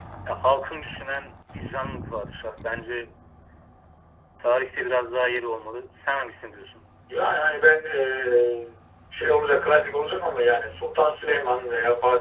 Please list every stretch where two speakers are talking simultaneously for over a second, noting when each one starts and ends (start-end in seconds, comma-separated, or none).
none